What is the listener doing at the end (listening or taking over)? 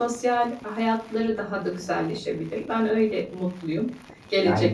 taking over